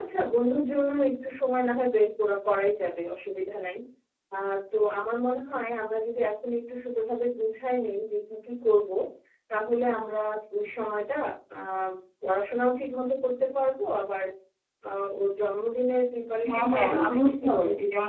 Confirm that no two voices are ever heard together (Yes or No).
No